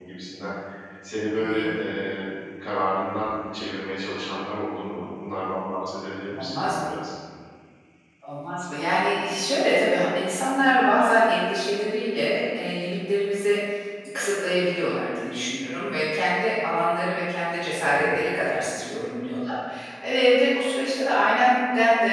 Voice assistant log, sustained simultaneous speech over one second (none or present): none